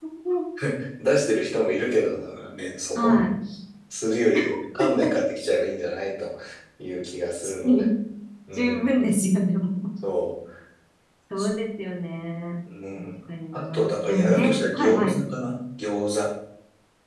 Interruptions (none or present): present